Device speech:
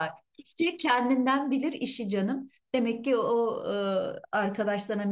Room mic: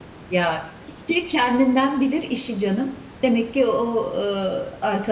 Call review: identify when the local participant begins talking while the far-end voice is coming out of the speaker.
none

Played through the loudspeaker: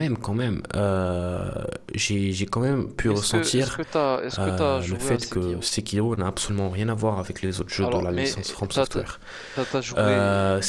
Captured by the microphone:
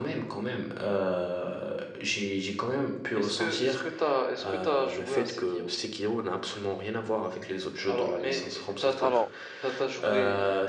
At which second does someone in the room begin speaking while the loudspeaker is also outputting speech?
9.0 s

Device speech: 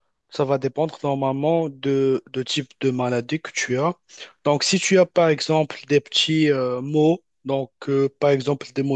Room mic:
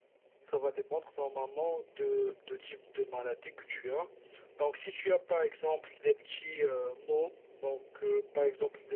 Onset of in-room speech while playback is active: none

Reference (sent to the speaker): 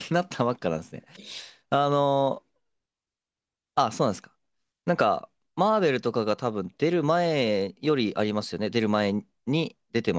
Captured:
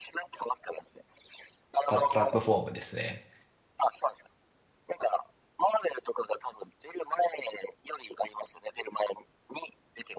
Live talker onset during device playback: 1.9 s

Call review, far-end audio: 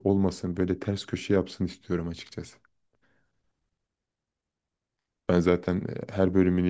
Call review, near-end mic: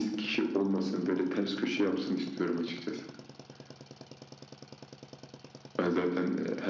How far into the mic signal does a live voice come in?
none

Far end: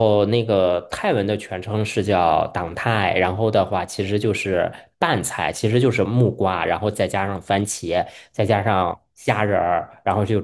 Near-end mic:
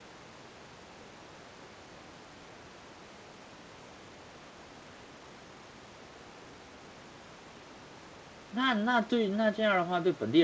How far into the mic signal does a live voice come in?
8.5 s

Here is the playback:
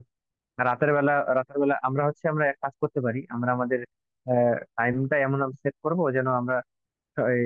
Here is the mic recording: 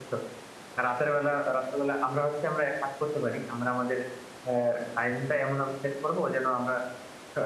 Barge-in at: none

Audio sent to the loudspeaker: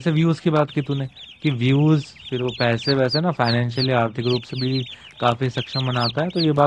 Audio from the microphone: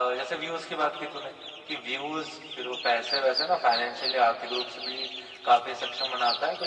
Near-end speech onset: none

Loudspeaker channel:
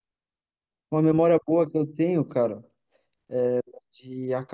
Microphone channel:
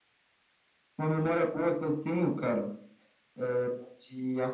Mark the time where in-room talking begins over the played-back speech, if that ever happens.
none

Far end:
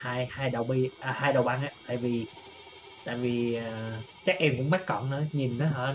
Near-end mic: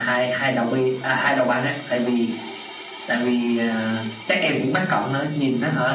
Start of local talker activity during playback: none

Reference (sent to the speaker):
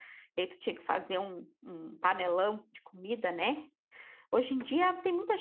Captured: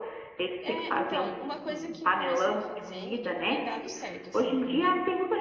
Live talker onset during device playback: 0.6 s

